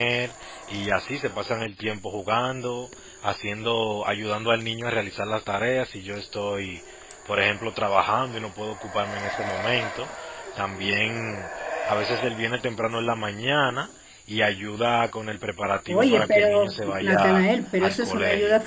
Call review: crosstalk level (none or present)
present